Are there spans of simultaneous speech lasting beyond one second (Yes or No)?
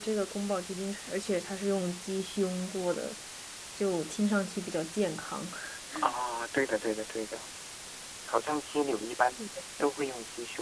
No